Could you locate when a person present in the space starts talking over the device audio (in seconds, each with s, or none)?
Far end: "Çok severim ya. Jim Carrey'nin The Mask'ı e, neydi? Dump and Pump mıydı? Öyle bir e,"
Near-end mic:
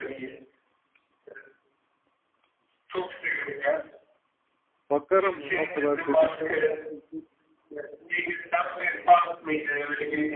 4.9 s